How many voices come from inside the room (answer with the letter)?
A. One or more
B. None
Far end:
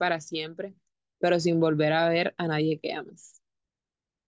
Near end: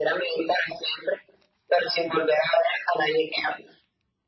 B